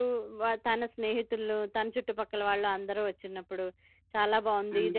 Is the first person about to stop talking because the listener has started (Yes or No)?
No